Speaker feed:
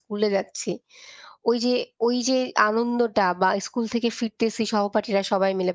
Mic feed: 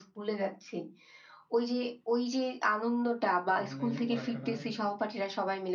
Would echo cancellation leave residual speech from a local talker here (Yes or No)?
Yes